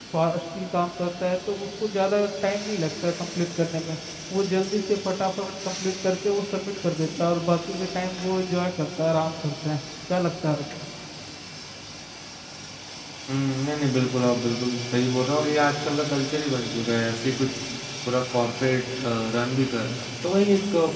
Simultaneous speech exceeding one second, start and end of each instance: none

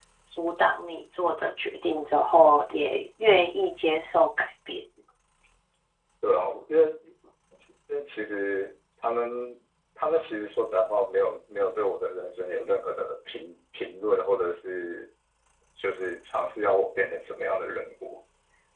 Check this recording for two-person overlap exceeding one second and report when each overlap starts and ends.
none

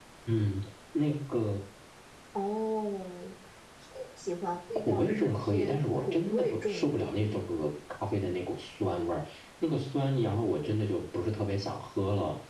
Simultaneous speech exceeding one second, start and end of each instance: 4.8-7.4

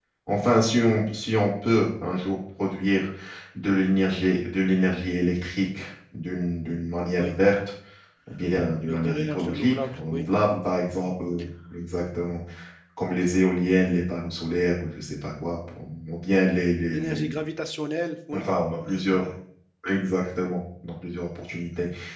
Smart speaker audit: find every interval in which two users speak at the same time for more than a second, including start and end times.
8.8-10.2

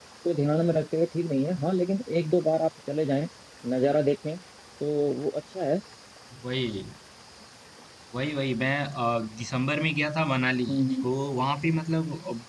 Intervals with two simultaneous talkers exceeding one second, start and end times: none

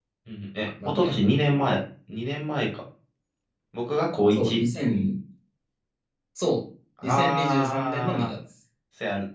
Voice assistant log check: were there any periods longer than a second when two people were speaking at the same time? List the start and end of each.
7.0-8.3

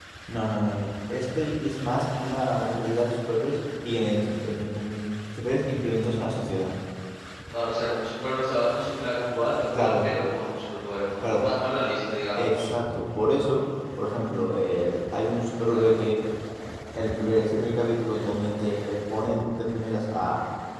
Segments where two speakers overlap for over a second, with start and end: none

